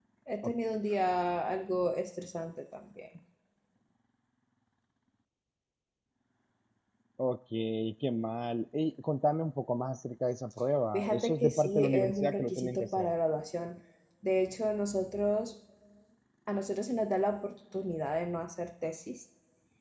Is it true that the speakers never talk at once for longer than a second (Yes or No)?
No